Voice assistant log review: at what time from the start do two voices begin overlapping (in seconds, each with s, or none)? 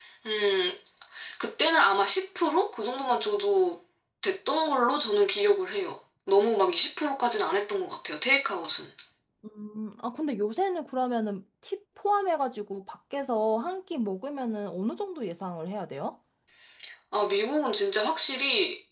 none